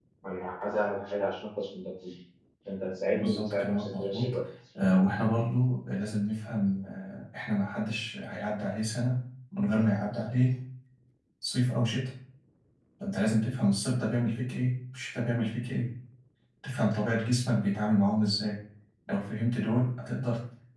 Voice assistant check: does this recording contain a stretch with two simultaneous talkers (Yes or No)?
Yes